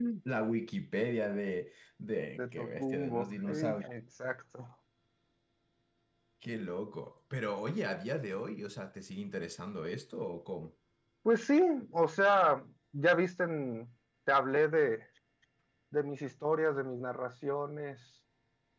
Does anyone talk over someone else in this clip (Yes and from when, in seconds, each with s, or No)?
Yes, from 2.4 s